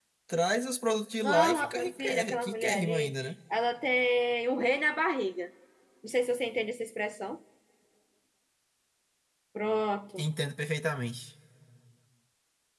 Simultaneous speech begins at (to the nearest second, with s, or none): 1 s